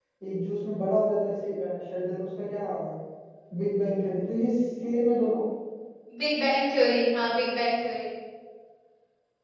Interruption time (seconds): none

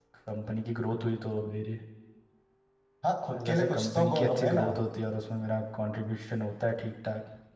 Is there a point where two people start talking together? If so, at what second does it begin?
3.3 s

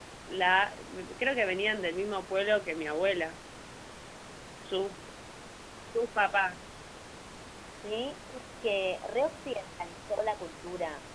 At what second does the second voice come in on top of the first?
none

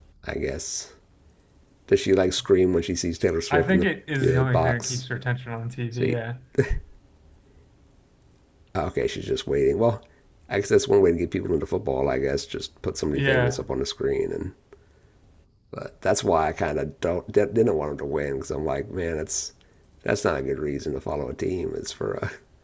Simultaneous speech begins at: 3.5 s

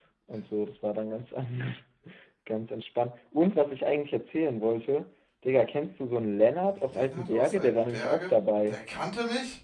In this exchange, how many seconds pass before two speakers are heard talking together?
6.9 s

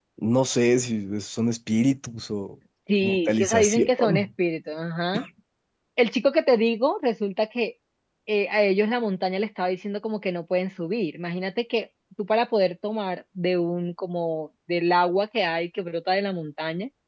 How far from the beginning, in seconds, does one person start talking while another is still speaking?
3.0 s

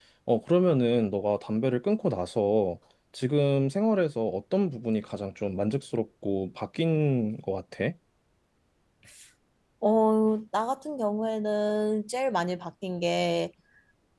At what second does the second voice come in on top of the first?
none

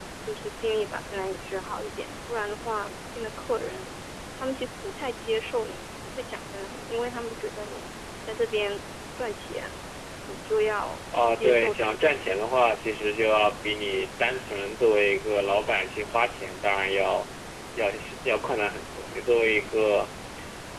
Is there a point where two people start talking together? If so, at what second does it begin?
11.1 s

